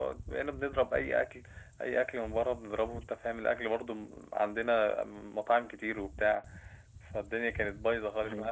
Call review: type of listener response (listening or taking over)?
listening